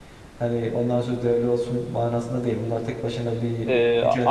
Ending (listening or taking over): taking over